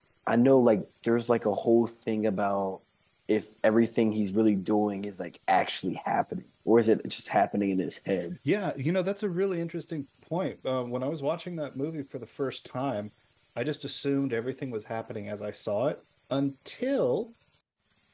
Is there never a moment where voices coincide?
Yes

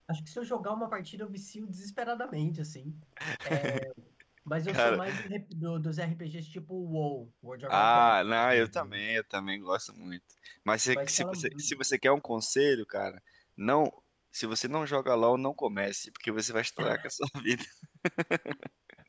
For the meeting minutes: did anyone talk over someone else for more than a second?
Yes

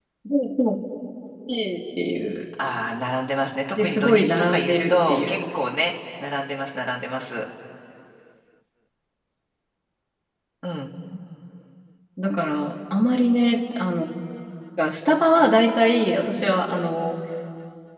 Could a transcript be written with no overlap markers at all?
No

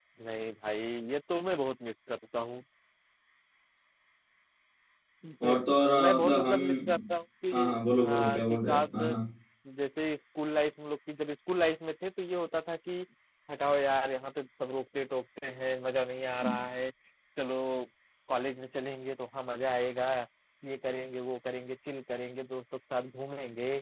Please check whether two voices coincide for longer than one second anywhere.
Yes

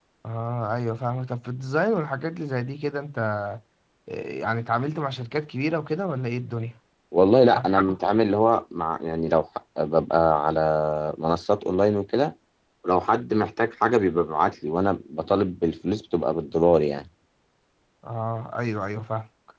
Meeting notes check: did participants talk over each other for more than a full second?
No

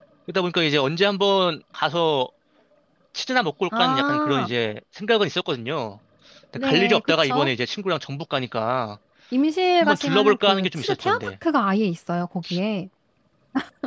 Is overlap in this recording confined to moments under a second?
No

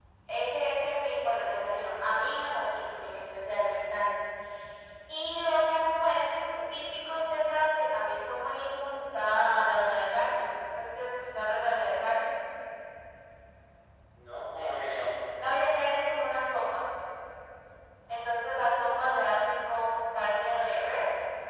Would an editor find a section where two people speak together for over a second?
No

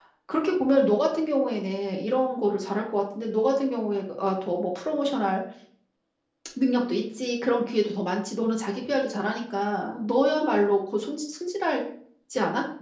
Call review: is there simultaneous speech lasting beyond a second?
No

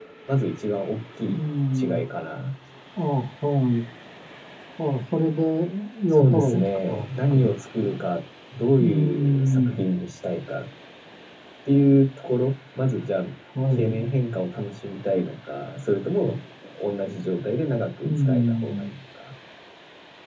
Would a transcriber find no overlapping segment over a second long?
No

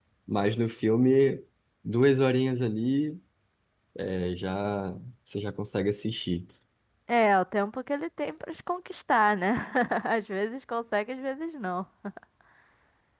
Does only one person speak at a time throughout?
Yes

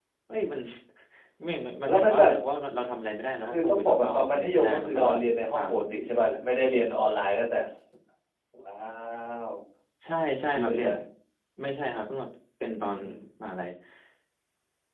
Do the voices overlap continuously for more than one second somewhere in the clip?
Yes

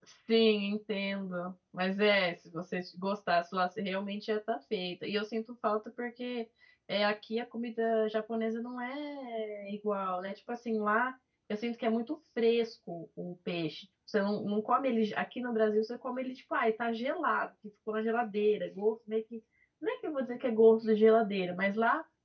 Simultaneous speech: No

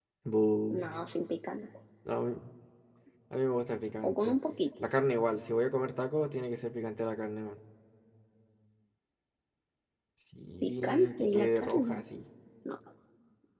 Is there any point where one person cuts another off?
Yes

